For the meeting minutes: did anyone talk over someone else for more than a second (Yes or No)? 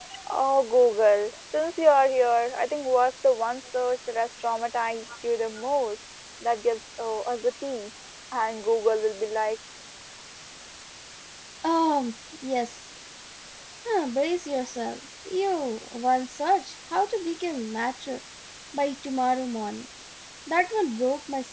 No